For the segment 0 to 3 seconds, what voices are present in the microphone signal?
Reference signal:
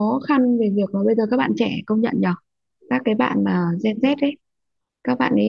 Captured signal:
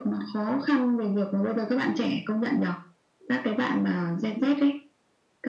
echo only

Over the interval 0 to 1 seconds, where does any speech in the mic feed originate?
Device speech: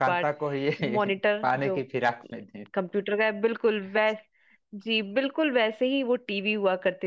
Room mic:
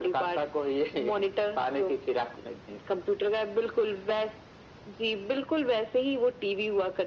echo only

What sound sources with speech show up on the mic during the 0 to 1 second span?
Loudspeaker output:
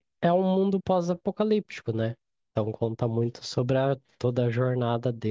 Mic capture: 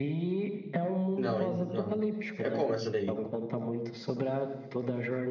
echo only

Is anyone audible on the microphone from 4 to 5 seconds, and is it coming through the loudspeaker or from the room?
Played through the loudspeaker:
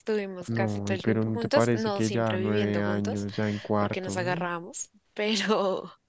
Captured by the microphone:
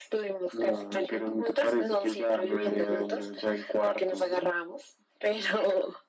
echo only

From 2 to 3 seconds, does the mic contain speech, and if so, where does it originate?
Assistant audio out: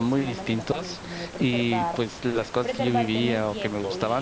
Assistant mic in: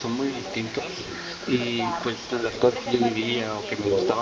echo only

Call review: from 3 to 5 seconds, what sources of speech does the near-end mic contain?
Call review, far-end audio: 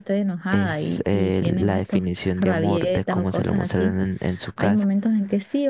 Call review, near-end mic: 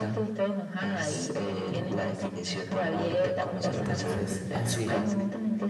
both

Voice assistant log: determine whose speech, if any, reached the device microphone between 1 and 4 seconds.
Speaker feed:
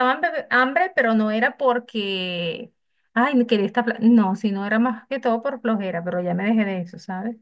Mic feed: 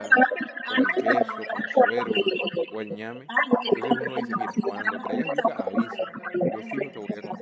both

